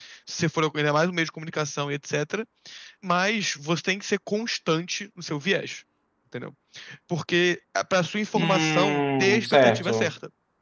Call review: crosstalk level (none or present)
present